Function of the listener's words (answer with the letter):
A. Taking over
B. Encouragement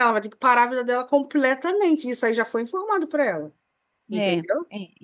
A